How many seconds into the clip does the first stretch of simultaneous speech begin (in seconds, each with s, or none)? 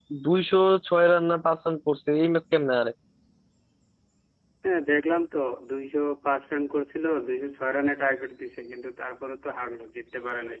none